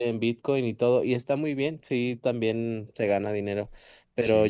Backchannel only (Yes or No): Yes